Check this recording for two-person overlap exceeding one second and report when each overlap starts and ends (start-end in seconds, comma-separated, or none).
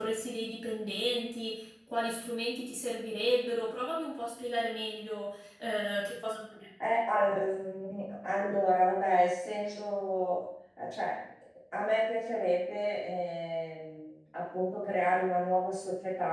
none